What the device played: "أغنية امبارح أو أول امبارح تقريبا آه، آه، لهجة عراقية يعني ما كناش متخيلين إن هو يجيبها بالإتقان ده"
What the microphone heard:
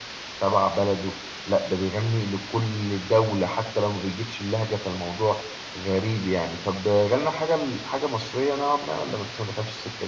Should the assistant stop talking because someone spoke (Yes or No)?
Yes